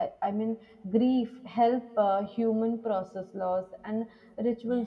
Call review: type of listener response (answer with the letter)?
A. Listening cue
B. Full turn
A